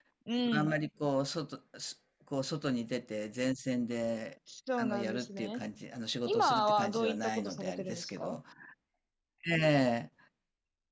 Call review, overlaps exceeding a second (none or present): present